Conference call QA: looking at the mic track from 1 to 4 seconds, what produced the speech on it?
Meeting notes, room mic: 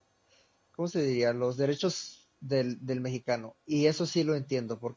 user only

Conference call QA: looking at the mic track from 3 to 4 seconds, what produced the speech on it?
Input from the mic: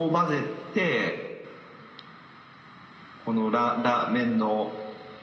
echo only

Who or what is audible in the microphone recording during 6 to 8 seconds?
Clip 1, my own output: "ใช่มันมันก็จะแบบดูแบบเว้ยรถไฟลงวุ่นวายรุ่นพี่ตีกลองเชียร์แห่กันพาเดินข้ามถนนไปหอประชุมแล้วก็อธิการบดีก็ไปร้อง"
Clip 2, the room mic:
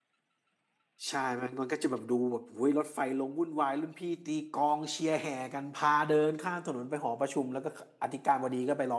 echo only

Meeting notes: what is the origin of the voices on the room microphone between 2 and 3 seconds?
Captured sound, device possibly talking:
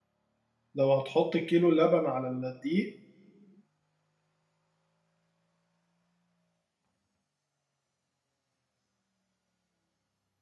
user only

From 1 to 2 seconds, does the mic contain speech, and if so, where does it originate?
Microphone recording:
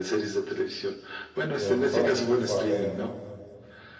both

